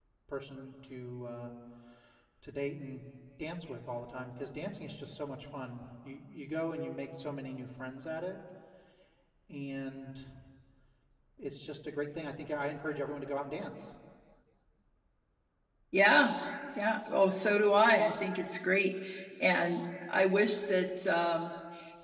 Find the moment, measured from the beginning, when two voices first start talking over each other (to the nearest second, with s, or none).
none